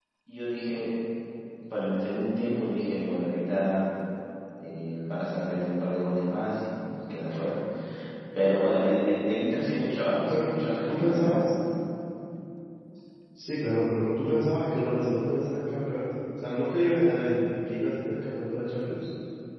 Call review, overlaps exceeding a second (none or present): none